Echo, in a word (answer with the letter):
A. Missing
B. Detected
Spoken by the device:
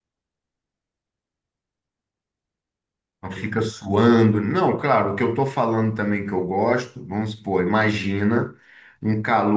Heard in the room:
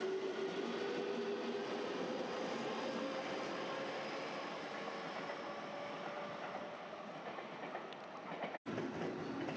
A